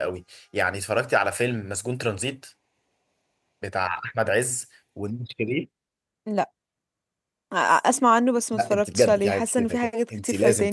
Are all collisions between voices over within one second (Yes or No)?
No